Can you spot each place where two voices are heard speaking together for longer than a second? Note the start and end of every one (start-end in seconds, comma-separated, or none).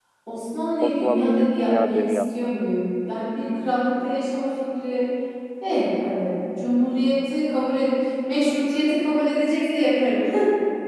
0.8-2.5